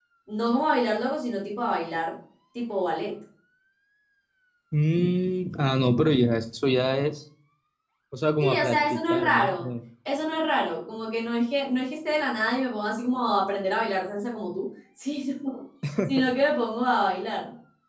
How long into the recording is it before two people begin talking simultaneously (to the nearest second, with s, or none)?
8 s